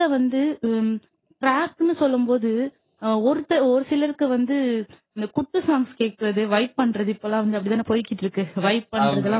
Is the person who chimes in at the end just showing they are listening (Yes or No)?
Yes